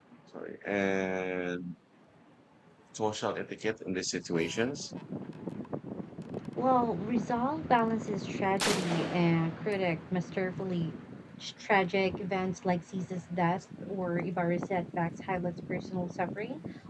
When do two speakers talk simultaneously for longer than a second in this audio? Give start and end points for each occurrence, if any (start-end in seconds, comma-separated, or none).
none